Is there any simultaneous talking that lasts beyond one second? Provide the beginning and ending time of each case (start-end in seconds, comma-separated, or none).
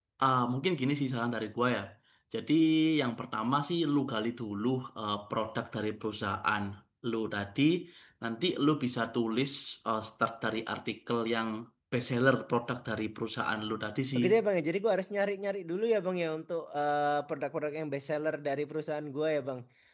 none